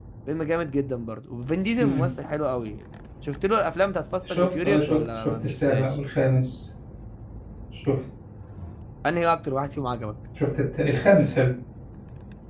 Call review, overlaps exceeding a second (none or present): present